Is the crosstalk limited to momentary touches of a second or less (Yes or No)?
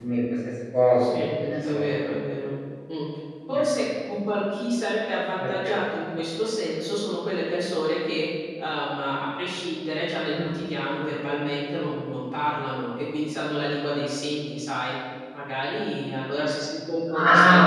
Yes